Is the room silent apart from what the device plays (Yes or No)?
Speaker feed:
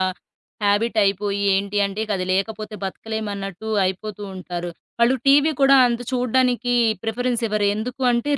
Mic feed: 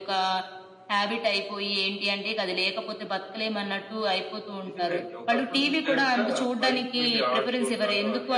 No